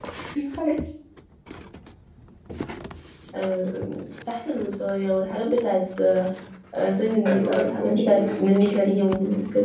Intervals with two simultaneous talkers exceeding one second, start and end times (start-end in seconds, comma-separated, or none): 7.2-8.7